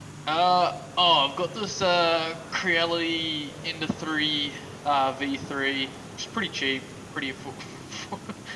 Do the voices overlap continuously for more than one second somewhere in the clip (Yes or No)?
No